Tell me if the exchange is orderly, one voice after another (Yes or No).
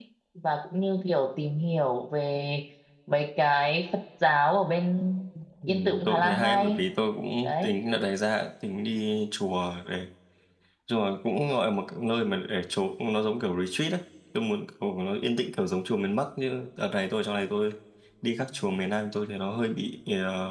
No